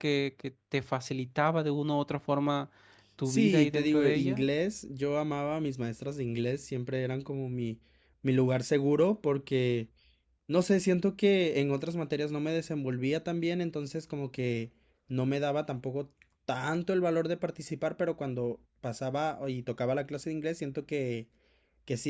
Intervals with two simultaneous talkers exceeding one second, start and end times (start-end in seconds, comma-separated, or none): 3.2-4.5